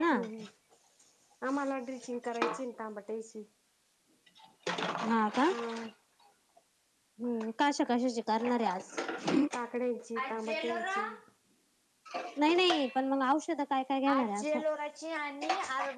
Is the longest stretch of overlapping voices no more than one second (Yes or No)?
Yes